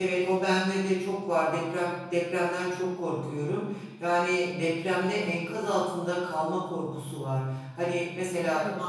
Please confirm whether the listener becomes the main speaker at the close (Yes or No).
No